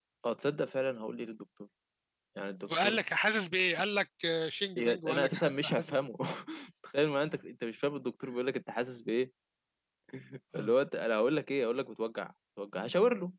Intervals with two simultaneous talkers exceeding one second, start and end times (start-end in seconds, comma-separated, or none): 4.8-6.0